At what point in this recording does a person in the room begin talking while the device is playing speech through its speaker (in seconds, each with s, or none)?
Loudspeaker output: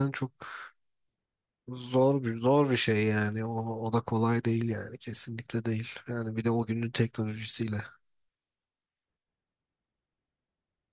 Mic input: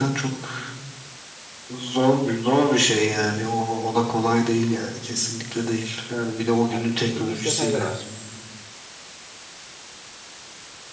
6.7 s